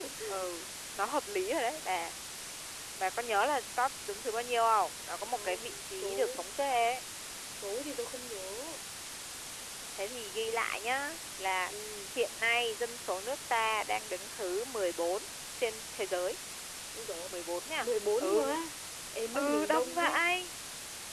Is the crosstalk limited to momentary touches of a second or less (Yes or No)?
No